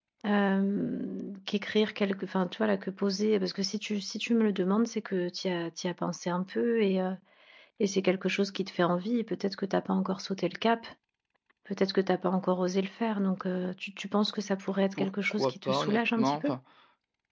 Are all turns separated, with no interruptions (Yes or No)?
No